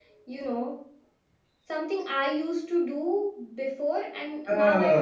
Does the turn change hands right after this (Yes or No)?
Yes